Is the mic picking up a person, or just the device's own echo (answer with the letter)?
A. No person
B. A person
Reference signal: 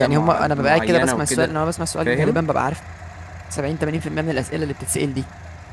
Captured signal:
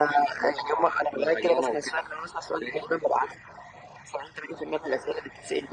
A